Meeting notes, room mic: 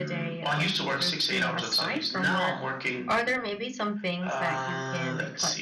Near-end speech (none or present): present